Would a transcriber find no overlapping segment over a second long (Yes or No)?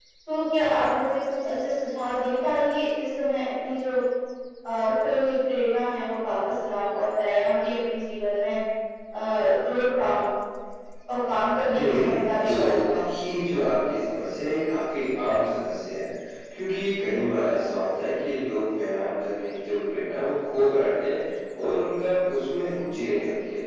No